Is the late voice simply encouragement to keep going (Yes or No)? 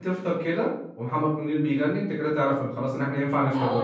No